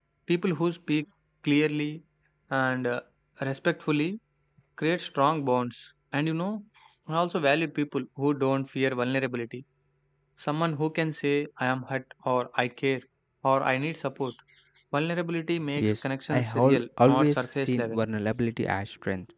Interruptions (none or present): present